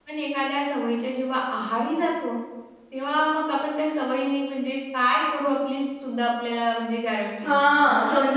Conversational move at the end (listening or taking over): taking over